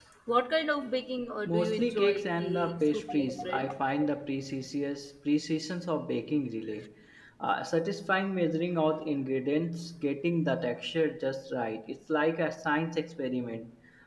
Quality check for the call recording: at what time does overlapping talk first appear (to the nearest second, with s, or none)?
1 s